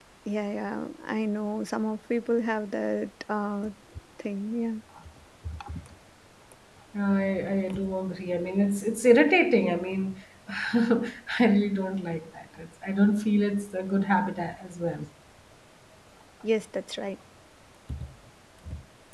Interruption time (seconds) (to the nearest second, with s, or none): none